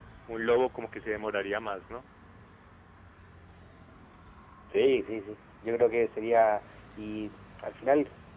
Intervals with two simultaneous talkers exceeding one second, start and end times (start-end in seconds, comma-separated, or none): none